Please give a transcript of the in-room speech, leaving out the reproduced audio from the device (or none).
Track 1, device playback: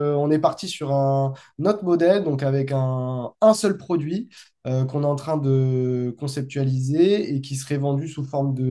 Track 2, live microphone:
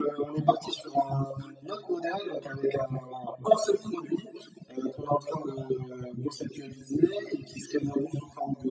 none